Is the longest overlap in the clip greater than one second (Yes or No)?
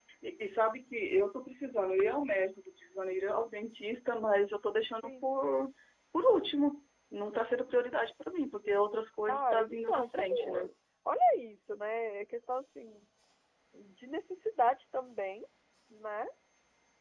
Yes